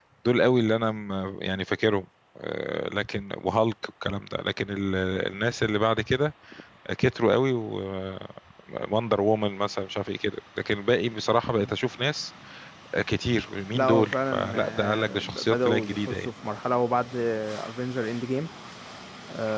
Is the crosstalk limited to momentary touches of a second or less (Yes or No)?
No